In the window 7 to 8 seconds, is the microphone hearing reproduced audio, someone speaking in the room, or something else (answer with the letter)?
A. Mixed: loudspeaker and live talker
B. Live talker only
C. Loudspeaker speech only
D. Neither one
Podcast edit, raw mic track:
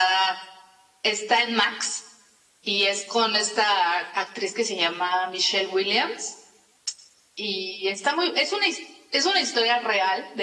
C